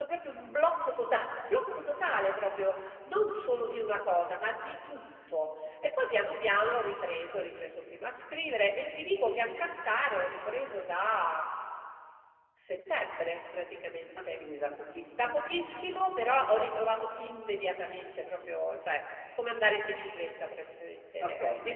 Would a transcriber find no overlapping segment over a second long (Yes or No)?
Yes